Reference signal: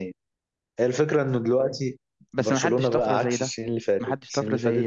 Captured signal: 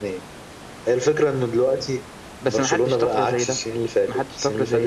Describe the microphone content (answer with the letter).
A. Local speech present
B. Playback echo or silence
B